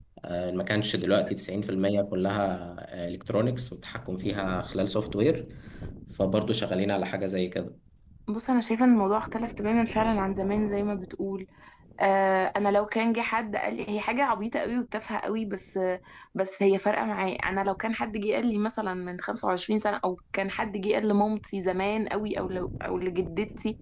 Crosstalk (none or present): none